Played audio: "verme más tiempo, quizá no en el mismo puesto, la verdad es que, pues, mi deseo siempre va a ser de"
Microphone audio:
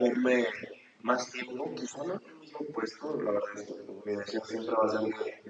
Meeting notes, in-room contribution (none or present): none